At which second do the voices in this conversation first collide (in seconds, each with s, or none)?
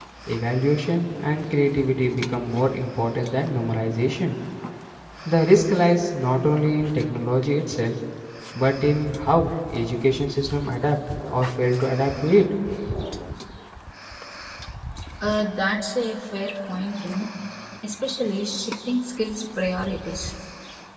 none